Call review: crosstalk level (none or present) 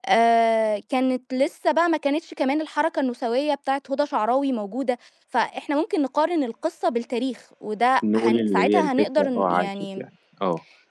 present